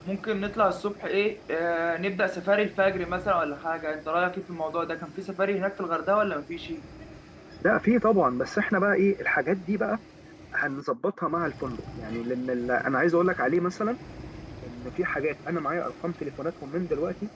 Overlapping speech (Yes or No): No